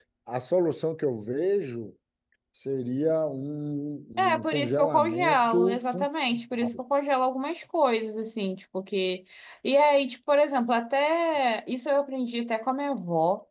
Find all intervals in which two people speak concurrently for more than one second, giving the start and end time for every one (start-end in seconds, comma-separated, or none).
4.2-6.1